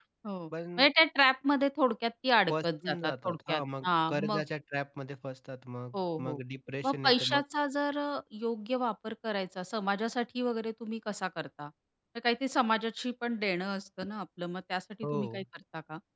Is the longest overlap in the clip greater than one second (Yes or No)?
Yes